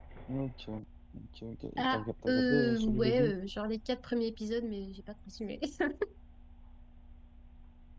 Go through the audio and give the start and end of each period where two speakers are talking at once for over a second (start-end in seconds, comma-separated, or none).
1.8-3.3